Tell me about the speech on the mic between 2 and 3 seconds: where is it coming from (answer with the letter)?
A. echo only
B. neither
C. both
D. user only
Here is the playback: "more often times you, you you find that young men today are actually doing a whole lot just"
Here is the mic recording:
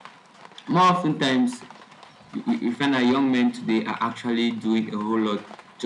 A